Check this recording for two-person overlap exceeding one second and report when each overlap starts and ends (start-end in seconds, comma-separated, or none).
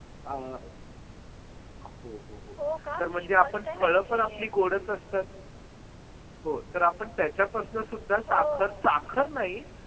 3.0-4.5